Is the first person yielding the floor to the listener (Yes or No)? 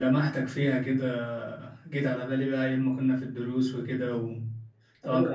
Yes